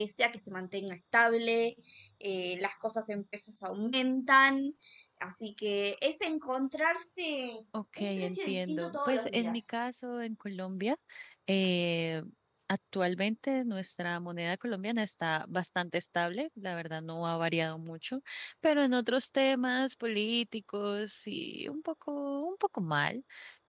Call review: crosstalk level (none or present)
present